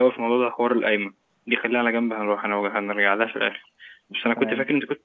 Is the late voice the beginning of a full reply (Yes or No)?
No